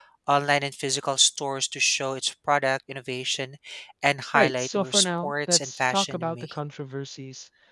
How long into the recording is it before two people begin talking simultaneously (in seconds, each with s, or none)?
4.3 s